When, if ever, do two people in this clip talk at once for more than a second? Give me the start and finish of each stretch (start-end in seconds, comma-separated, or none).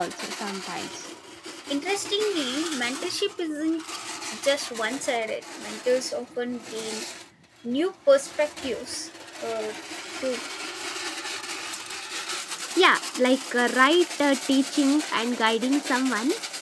none